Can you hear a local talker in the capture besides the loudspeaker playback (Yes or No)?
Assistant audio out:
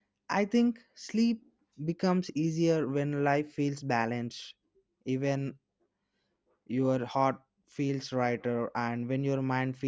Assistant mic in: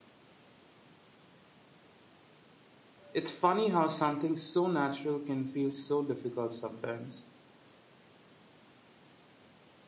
Yes